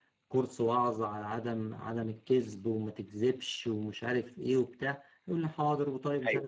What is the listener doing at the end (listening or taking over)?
listening